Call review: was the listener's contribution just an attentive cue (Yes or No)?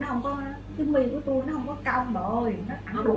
No